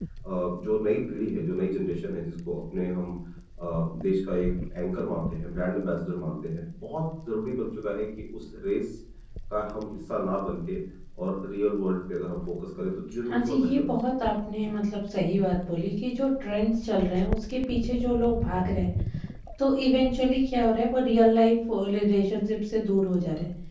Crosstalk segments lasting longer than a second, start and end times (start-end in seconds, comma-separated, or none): 13.3-14.7